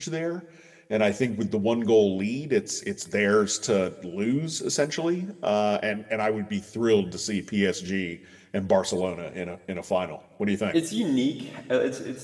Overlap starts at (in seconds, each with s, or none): none